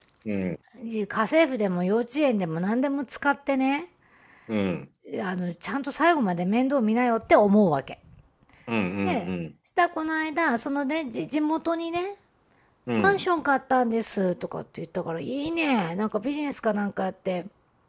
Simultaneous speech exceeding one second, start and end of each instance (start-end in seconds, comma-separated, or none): none